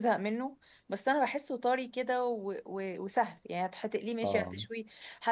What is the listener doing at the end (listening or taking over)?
listening